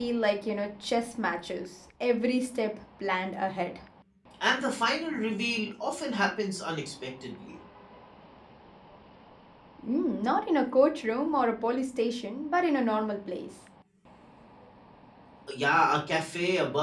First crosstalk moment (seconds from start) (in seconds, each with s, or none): none